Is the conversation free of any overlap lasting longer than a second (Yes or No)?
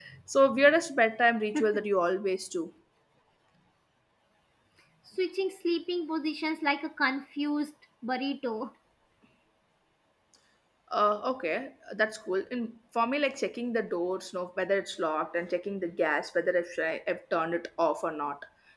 Yes